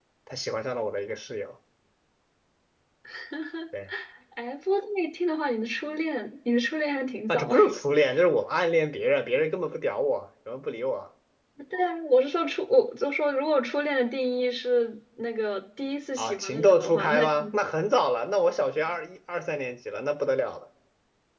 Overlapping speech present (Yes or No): Yes